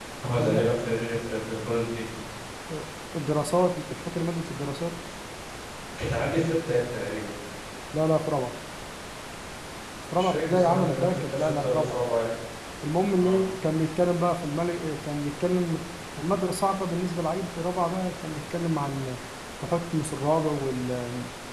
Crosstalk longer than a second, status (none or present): present